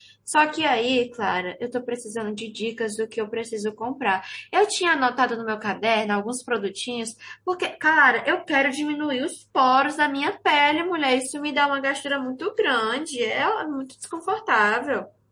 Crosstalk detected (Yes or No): No